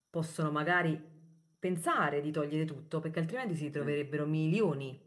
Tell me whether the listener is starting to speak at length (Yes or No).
No